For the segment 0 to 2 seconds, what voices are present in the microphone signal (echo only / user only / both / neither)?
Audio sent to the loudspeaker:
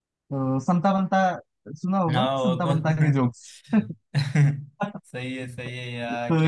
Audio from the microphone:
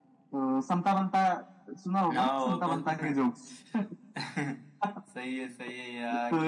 echo only